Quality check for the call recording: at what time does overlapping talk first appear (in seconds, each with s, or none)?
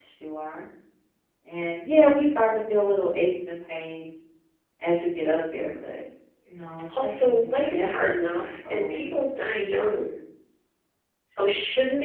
7.0 s